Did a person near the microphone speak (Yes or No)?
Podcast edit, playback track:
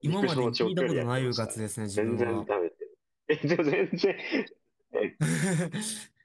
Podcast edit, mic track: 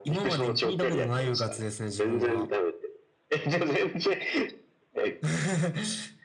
No